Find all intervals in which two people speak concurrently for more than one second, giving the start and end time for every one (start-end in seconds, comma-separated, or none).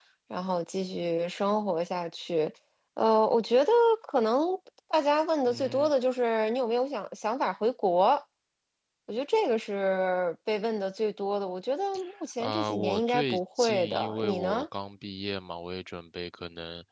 12.4-14.6